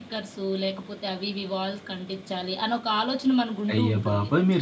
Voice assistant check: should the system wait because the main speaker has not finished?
No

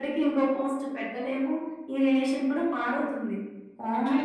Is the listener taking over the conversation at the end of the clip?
No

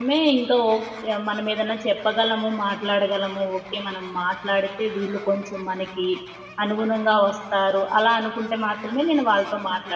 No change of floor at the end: No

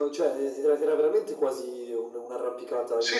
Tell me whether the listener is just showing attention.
No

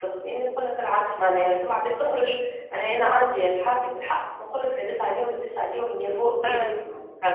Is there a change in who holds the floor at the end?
No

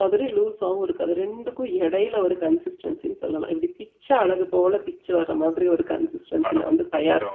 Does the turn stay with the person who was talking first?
No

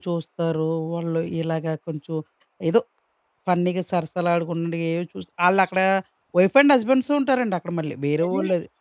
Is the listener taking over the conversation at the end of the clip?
Yes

